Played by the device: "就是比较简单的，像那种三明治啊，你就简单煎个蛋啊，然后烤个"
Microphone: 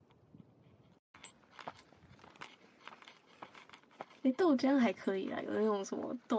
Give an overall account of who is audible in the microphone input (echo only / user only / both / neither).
user only